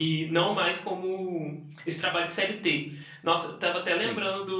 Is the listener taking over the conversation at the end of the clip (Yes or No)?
No